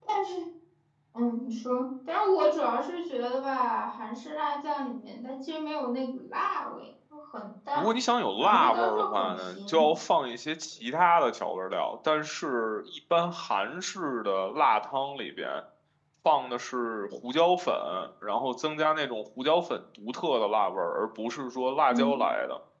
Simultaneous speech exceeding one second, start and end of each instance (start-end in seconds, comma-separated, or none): 8.4-9.8